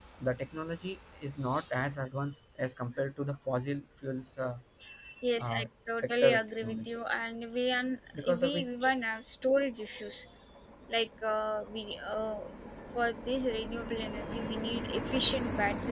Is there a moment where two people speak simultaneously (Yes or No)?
Yes